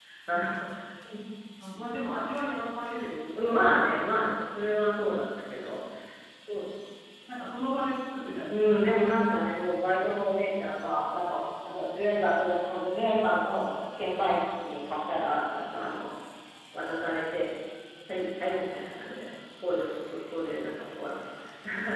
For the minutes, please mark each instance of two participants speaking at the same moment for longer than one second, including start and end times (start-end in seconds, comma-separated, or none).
none